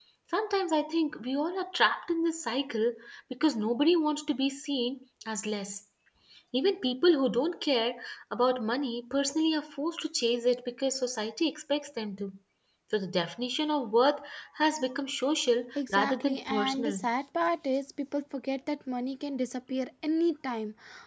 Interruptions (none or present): present